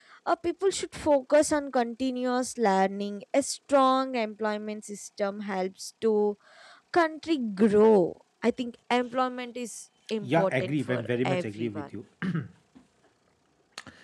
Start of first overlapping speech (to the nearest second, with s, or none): 10 s